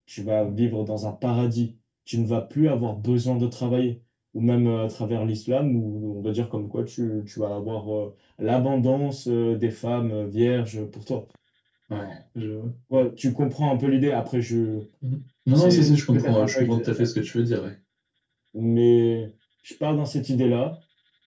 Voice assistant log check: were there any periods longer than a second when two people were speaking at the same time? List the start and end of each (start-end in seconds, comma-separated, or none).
15.5-16.9